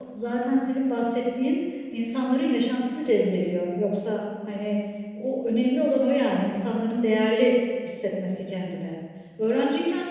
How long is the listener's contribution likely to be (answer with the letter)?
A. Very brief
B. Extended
A